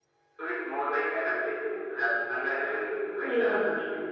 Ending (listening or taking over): taking over